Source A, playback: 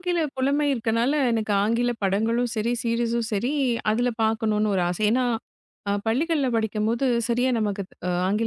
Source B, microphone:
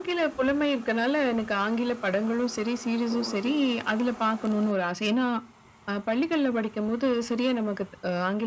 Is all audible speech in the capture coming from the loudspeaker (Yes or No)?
No